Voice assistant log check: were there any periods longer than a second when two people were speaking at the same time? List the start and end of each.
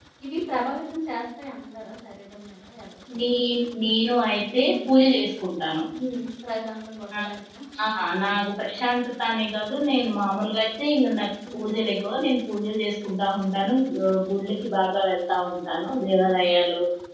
none

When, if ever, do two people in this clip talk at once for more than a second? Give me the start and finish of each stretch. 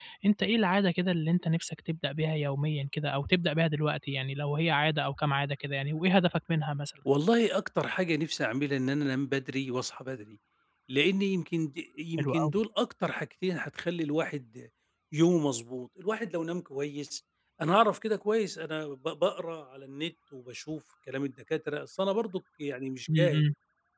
none

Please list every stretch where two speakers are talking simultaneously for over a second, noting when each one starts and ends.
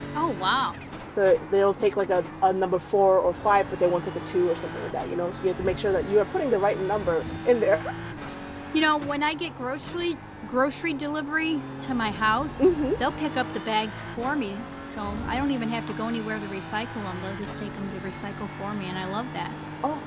none

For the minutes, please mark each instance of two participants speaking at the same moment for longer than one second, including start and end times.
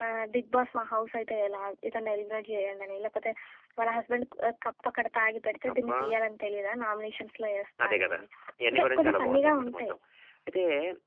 8.7-9.9

